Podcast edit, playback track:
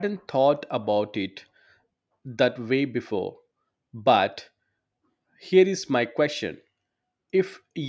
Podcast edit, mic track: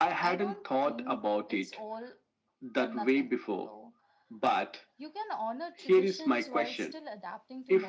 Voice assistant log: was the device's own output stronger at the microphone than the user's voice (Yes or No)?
Yes